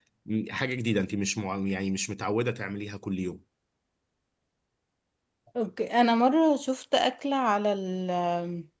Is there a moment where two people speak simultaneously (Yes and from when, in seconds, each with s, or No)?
No